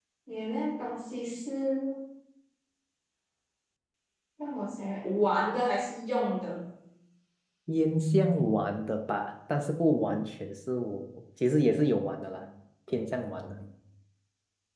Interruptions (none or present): none